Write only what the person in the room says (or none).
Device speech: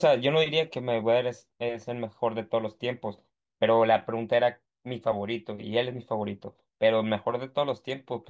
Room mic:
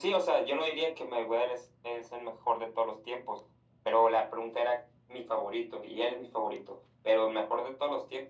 none